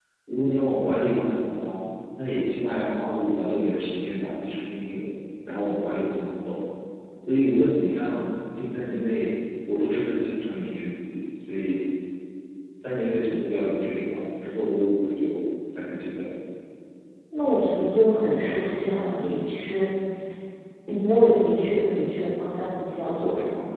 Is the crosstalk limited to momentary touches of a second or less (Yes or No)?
Yes